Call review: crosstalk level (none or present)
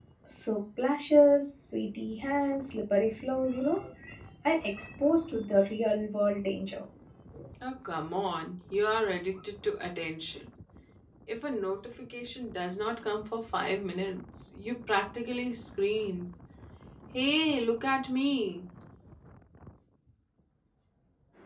none